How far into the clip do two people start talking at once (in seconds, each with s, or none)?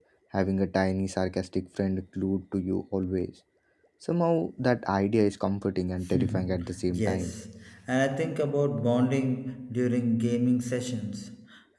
6.1 s